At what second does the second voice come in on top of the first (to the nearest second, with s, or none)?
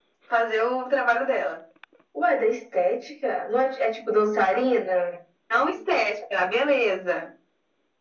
none